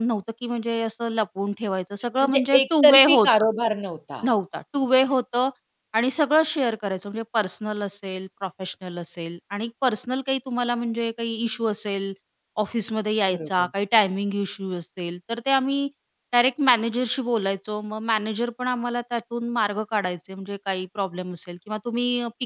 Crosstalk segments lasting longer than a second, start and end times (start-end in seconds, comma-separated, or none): 2.2-3.4